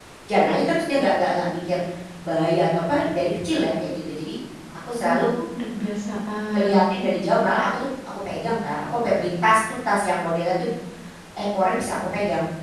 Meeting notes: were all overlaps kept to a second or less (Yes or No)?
Yes